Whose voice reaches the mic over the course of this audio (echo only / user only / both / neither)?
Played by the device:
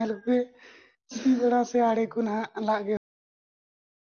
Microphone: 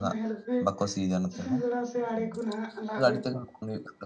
both